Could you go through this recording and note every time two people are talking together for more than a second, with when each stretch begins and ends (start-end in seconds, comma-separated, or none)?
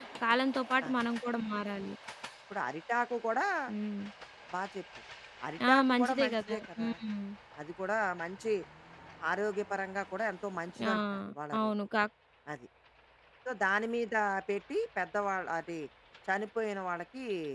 5.7-6.9